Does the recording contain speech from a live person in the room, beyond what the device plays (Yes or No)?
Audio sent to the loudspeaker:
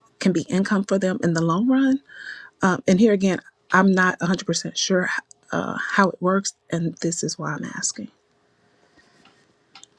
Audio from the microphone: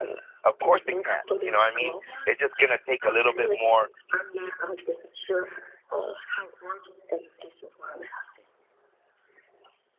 Yes